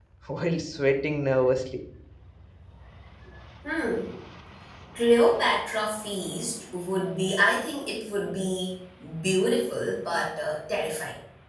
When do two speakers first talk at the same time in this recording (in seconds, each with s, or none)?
none